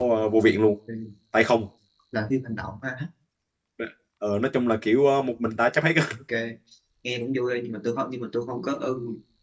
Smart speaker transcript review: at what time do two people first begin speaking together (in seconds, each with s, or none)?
none